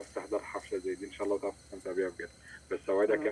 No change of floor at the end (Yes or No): Yes